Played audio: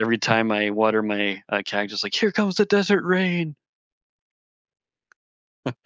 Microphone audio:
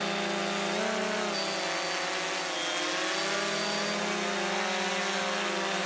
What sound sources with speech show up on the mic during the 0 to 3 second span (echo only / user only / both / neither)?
neither